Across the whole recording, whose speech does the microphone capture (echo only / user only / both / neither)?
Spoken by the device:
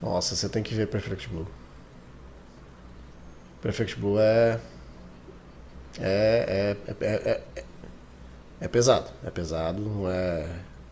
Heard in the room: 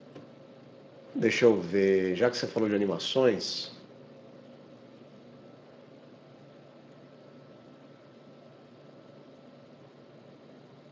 user only